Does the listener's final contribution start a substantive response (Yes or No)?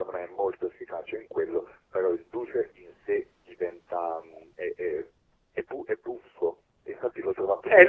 Yes